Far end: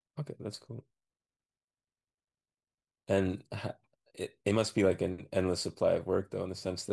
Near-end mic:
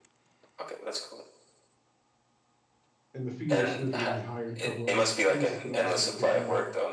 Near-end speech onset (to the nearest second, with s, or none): 3 s